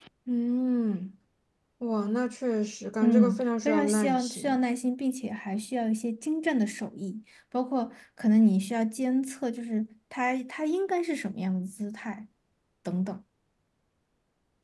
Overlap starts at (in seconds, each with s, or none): 3.0 s